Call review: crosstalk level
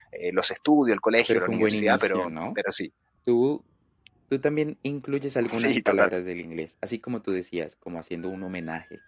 present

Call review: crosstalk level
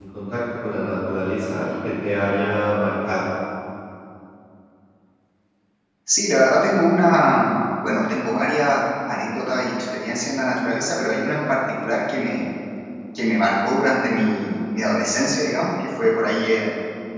none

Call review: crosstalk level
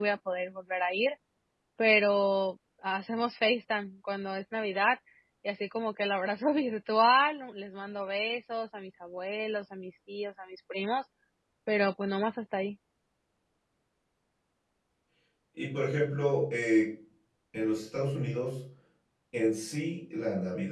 none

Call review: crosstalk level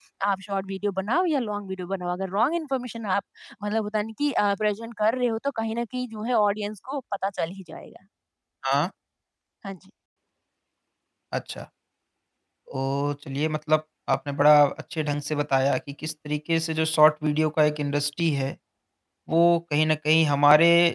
none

